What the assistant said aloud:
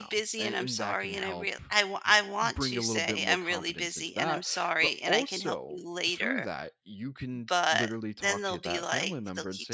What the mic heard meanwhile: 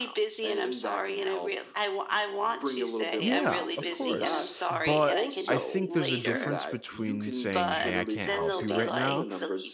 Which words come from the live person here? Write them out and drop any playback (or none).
yeah, of course. But I think there's a difference between saying, Hey, I can't help you right now,